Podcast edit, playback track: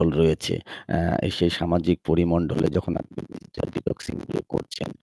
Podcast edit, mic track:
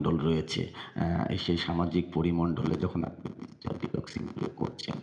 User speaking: No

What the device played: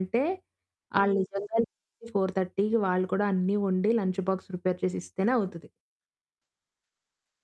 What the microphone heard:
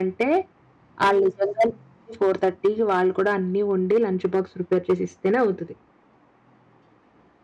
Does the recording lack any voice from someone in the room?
Yes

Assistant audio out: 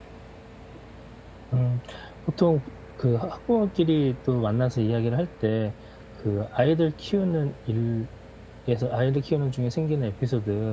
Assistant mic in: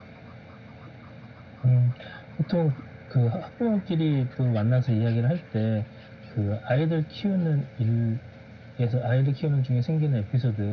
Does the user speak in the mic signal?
No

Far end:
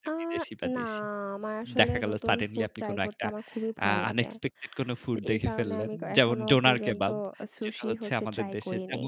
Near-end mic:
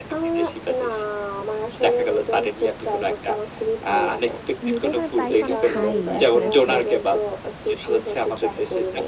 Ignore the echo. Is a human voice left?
Yes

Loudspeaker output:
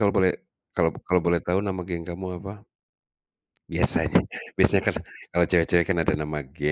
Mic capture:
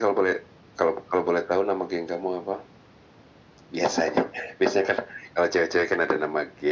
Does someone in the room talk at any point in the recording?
No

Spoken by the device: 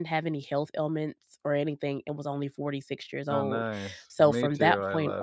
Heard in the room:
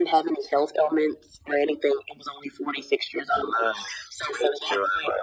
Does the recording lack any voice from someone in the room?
Yes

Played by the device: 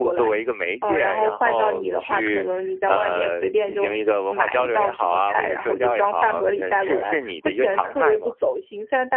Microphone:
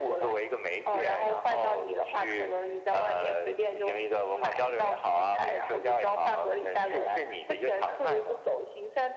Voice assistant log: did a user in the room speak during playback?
No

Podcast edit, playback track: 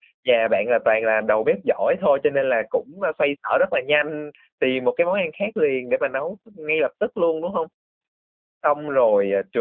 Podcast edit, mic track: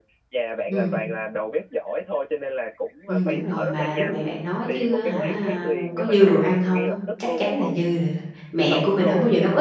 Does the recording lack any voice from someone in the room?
No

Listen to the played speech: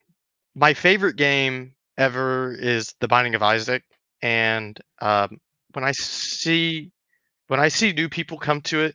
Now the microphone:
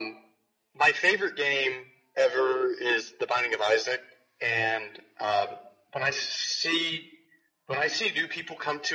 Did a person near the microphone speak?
No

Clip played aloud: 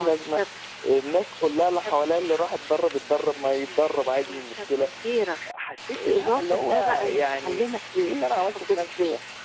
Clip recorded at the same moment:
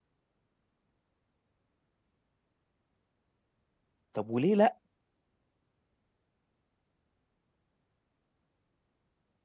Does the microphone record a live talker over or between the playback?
Yes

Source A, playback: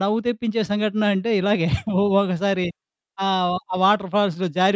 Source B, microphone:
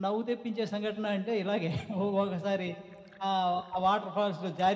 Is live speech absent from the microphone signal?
Yes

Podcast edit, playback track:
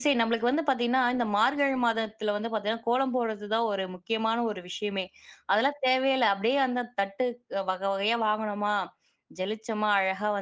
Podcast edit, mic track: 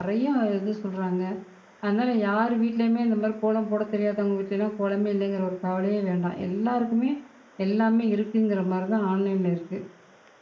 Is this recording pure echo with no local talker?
No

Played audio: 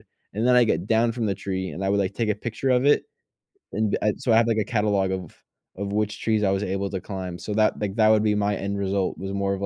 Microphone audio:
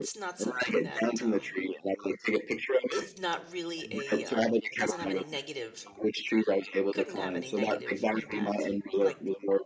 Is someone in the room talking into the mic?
Yes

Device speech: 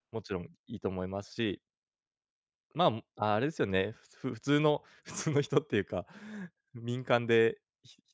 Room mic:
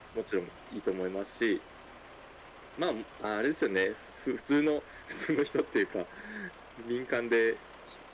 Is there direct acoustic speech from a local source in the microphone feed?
No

